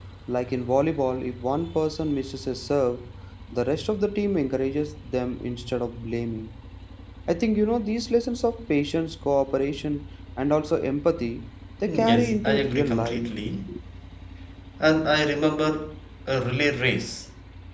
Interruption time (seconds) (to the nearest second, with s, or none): 12 s